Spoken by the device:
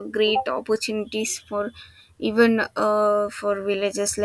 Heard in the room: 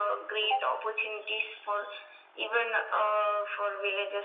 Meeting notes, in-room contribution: none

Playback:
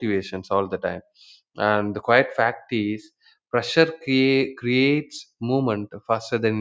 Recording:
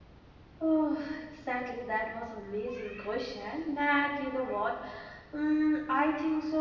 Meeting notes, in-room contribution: present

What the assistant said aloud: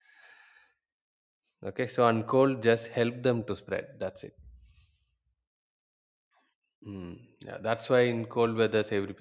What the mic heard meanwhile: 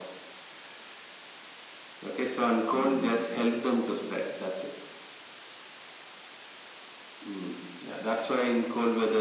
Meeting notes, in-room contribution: present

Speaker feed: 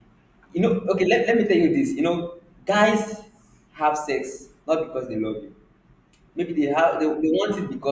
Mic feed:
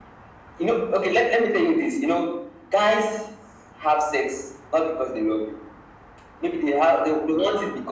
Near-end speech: none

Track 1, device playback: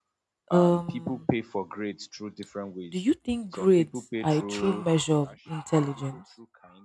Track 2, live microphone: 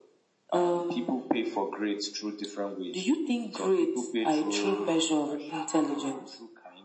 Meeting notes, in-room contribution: none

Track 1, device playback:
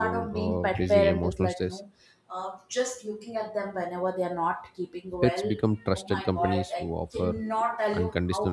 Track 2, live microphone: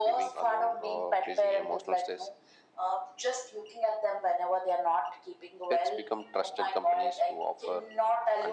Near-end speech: none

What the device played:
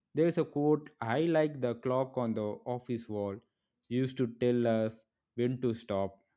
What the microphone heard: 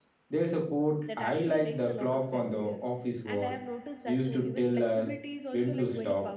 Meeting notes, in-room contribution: present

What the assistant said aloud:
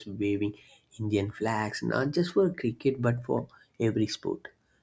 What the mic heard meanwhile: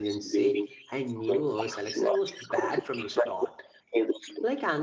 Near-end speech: present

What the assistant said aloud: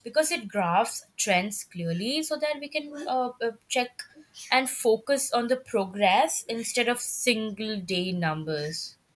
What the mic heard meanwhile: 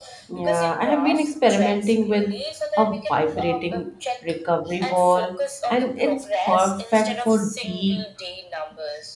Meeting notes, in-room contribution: present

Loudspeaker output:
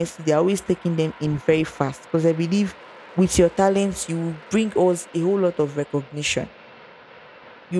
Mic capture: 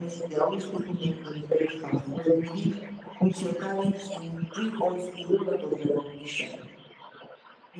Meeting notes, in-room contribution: none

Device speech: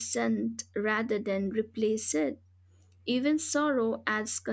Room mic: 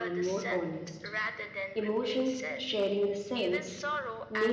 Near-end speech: present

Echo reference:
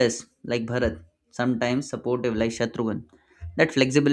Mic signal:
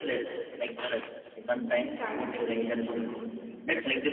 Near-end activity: present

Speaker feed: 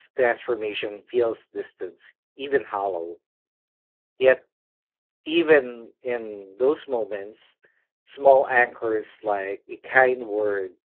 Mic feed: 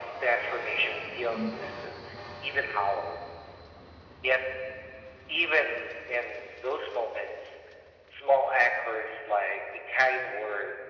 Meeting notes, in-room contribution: present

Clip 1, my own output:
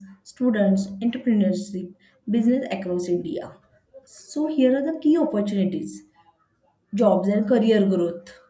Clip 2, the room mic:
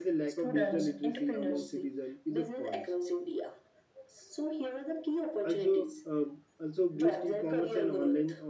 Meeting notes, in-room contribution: present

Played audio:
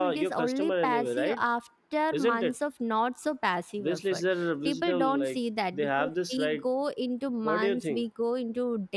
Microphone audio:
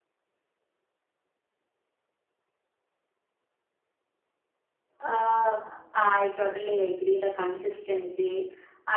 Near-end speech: present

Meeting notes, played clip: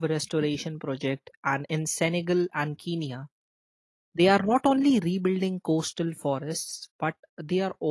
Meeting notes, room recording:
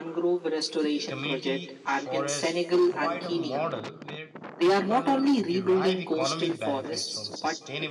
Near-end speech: present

